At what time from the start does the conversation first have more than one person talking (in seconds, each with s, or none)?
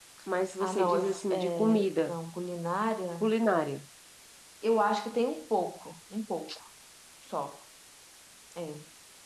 0.6 s